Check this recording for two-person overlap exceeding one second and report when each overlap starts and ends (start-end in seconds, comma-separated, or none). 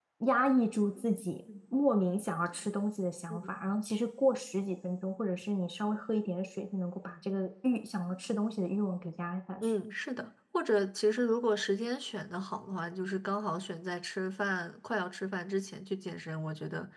none